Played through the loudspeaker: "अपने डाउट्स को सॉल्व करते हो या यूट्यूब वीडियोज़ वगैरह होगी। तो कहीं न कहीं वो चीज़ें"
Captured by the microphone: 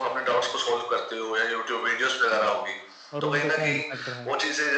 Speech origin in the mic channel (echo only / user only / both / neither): both